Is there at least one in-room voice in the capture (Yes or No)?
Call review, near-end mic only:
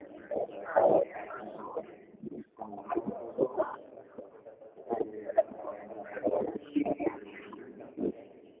Yes